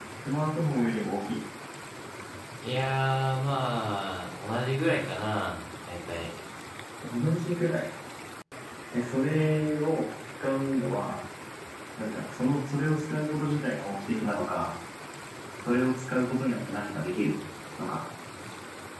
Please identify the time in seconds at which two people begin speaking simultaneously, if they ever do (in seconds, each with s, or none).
none